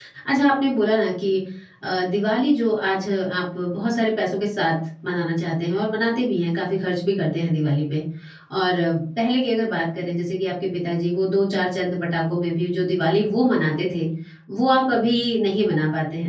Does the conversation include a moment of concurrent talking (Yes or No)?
No